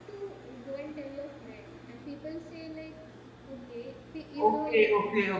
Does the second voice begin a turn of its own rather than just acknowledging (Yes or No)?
Yes